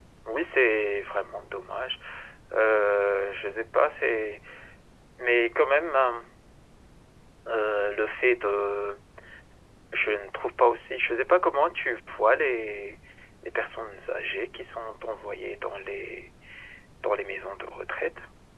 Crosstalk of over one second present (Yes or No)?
No